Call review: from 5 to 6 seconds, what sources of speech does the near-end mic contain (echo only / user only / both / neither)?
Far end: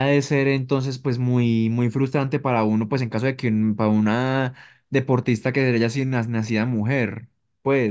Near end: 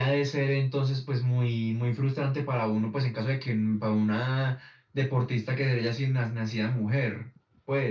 echo only